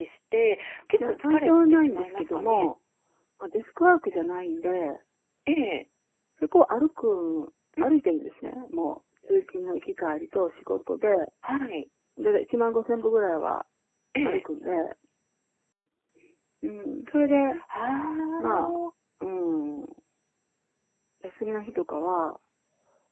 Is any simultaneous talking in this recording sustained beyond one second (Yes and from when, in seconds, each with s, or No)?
Yes, from 1.0 s